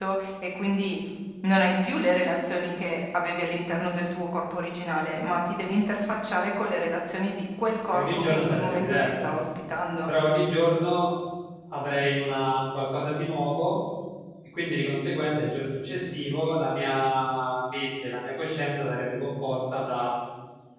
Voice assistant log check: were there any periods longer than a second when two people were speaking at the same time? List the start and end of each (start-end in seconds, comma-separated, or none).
7.9-9.3